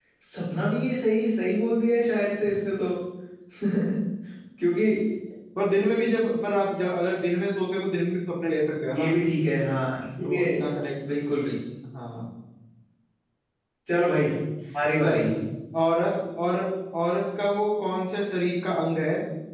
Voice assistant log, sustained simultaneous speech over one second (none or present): none